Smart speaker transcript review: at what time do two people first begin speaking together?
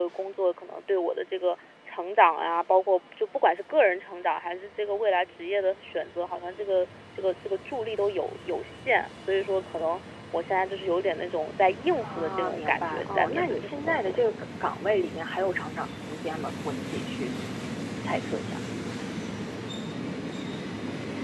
12 s

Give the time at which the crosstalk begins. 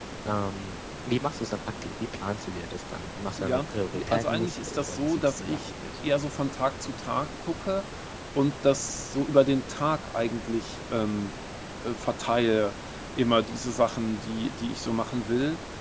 3 s

